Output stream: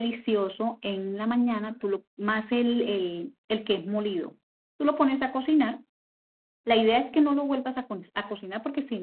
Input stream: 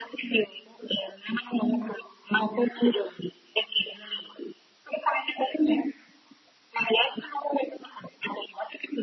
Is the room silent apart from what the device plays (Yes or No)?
Yes